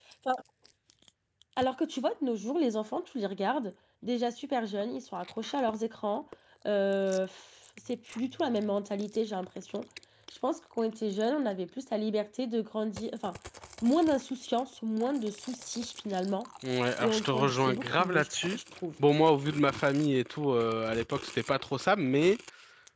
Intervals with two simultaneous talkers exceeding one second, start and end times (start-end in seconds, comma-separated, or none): 17.0-18.6